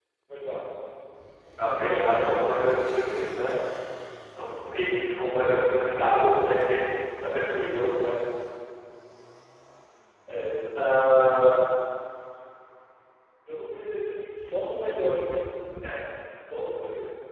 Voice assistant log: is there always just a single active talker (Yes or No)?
No